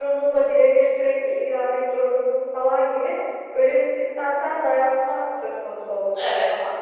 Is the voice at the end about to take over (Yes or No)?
No